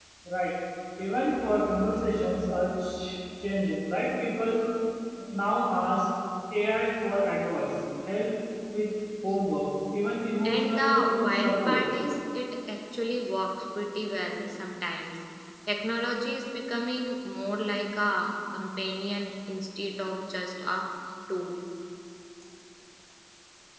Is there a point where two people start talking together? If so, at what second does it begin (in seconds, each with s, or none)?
10.4 s